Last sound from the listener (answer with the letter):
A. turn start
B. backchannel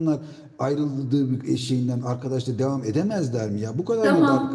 A